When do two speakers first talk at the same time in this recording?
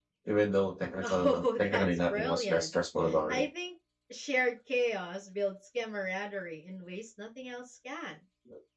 1.0 s

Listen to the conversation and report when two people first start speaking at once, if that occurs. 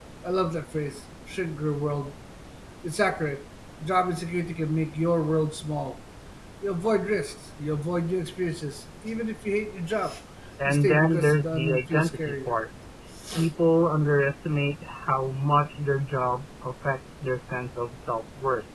10.7 s

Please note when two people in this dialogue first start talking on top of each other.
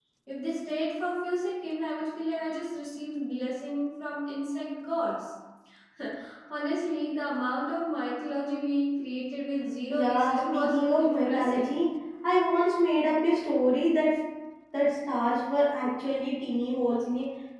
9.9 s

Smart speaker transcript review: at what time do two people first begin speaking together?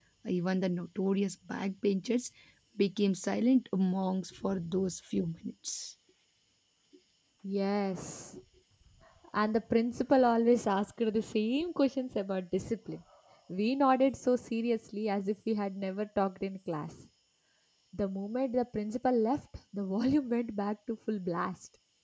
none

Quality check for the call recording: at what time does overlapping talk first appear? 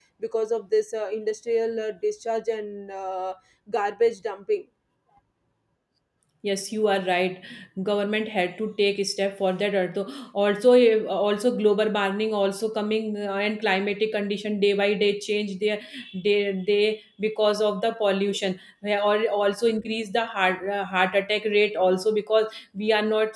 none

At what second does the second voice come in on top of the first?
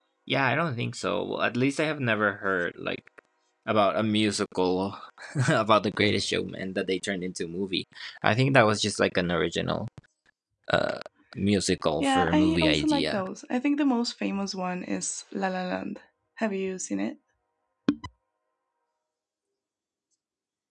12.0 s

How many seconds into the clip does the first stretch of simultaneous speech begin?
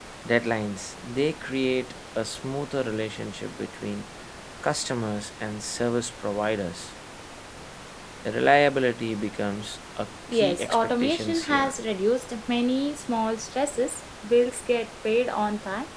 10.3 s

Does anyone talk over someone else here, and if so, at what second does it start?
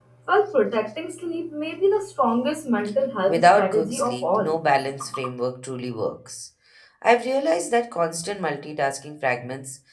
3.3 s

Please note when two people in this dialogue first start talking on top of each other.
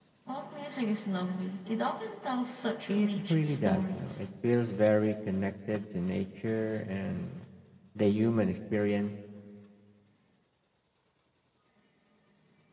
2.9 s

